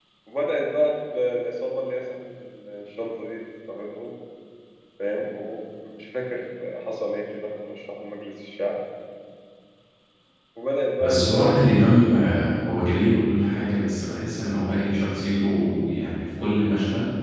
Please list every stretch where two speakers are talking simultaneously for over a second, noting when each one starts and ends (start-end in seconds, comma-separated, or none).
11.0-12.5